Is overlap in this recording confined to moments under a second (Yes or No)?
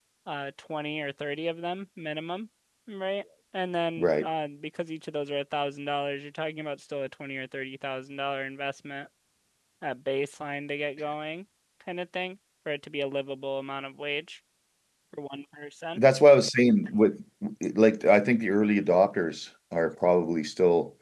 Yes